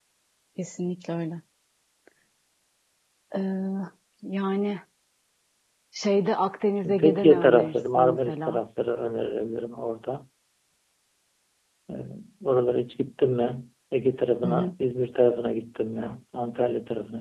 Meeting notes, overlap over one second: present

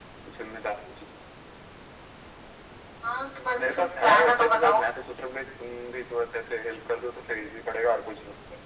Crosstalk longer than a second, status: present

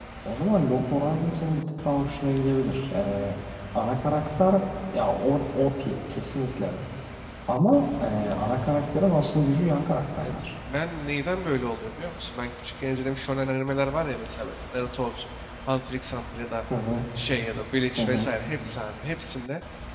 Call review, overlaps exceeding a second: none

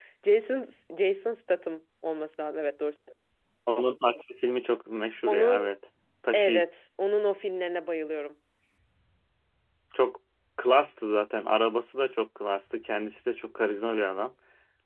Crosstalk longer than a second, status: none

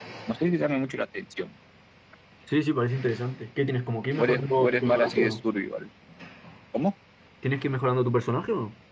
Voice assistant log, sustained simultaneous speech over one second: present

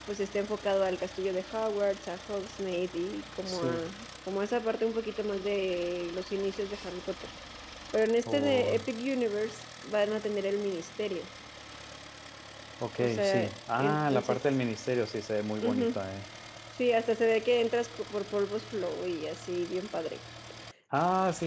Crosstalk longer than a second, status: present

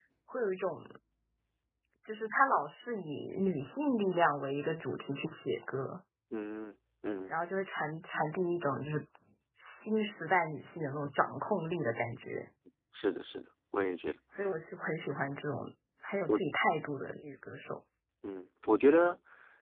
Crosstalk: none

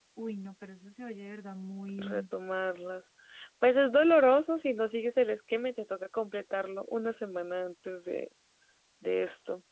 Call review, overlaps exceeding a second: none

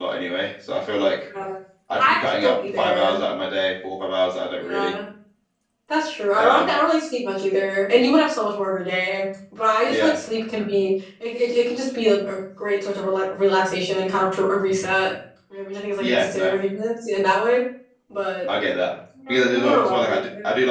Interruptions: present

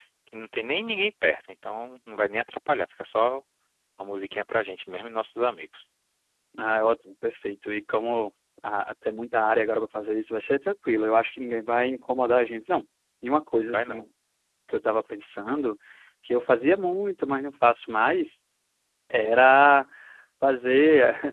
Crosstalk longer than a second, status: none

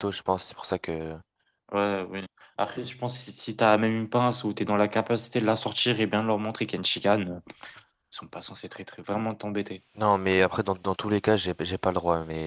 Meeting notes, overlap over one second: none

